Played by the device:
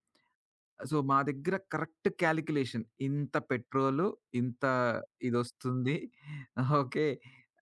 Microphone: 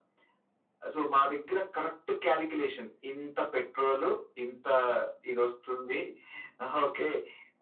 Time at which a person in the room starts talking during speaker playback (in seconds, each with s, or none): none